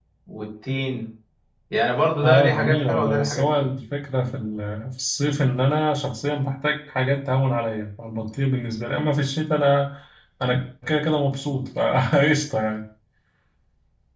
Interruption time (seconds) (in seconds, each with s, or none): 2.2 s